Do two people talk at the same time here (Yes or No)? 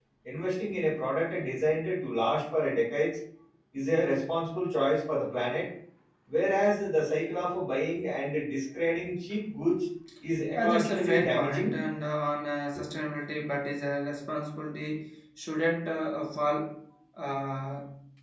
Yes